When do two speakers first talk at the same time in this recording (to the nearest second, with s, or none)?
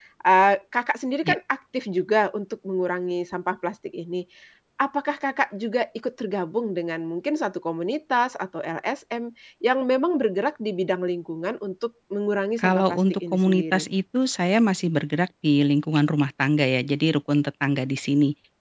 13 s